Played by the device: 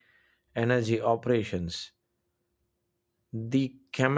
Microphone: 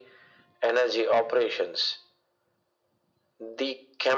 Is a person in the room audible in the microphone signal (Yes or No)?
No